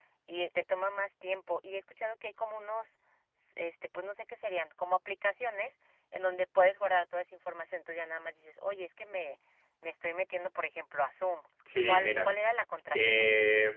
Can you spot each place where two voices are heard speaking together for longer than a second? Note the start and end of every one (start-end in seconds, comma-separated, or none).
none